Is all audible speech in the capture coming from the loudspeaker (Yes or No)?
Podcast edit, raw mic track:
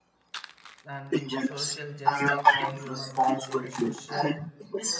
No